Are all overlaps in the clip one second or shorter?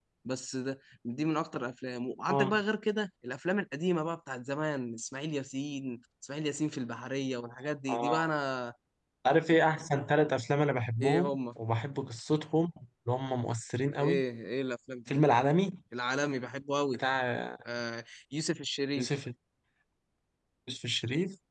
Yes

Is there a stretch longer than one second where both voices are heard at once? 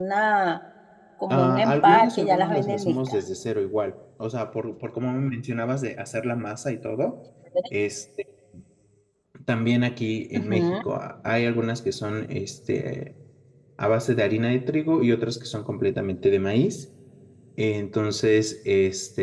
Yes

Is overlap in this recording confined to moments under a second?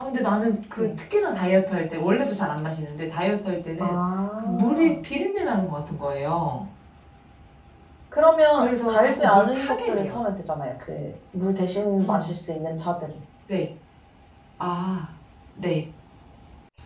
No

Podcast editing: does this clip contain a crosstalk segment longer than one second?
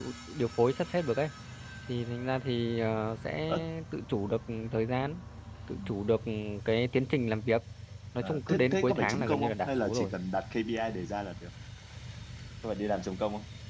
Yes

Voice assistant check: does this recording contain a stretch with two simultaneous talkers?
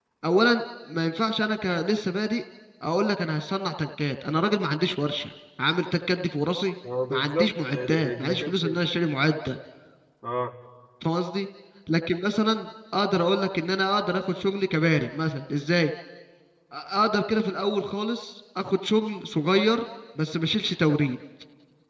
Yes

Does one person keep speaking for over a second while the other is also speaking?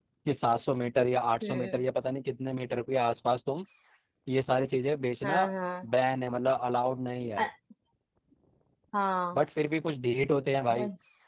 No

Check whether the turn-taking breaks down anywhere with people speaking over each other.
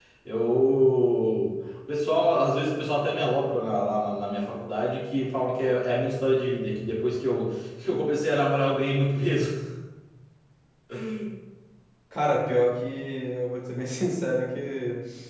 No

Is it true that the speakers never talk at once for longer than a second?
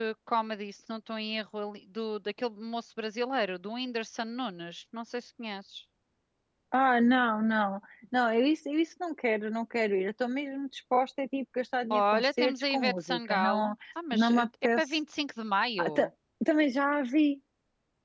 No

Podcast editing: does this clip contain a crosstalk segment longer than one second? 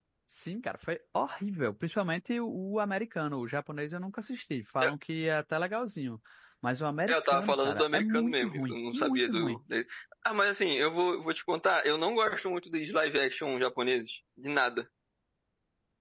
Yes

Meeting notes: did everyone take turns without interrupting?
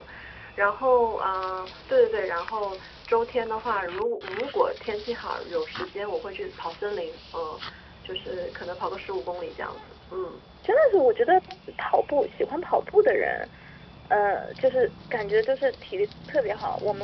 Yes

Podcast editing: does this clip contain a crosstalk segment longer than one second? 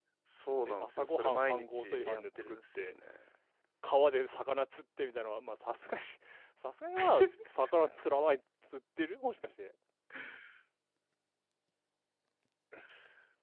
Yes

